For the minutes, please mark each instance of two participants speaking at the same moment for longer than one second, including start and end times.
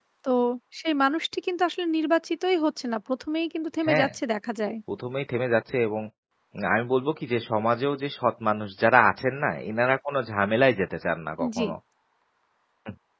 none

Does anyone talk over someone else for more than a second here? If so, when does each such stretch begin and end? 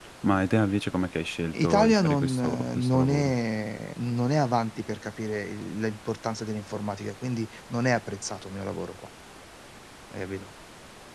1.5-3.3

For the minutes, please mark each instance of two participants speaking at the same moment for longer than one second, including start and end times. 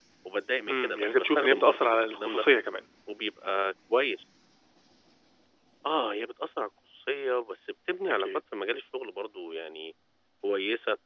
0.7-2.4

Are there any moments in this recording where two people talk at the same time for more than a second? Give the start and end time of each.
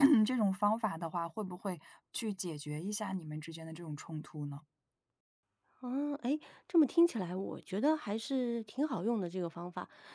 none

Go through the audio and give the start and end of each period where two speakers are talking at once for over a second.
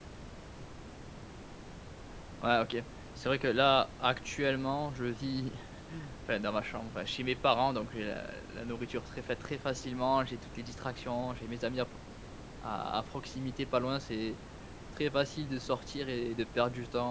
none

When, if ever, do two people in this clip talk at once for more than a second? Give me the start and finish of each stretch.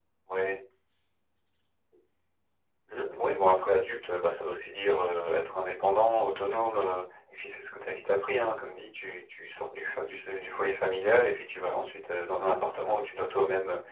none

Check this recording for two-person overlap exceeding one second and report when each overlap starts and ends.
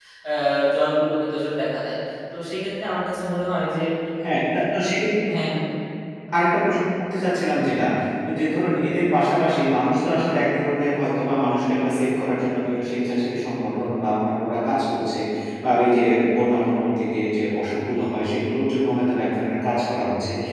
none

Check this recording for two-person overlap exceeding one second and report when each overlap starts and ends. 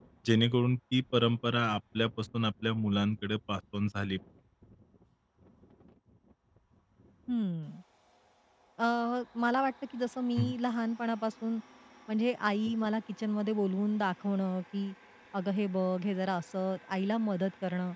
none

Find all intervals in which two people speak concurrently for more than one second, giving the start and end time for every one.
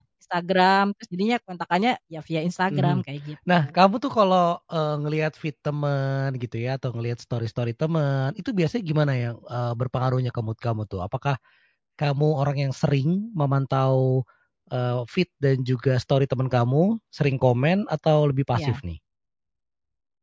none

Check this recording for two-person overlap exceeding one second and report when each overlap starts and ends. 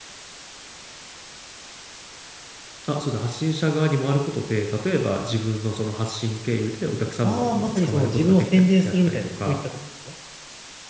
7.2-9.6

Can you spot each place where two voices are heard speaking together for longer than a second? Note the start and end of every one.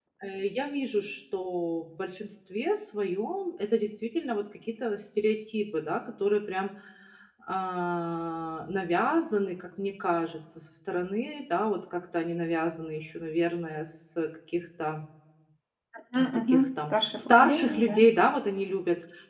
16.1-18.0

